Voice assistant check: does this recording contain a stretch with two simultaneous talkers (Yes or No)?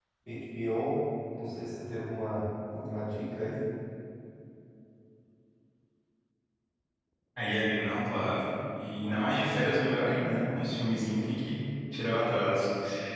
No